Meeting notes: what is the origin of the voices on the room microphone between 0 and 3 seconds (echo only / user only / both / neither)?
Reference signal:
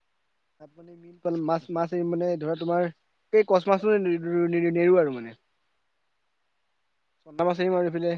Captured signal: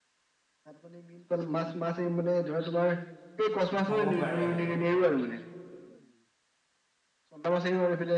echo only